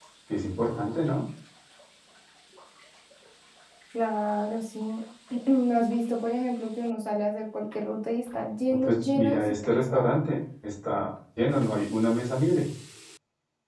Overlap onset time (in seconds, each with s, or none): 8.7 s